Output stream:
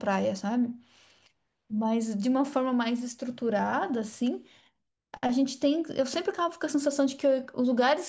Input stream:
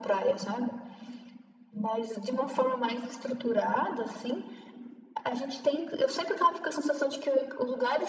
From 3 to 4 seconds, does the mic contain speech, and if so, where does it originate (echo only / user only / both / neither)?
echo only